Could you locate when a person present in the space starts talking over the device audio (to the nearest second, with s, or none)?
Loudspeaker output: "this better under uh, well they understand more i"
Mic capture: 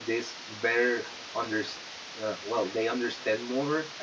none